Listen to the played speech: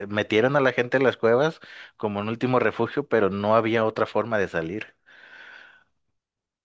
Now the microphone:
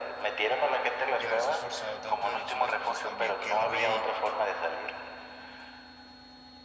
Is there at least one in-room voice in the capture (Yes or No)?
Yes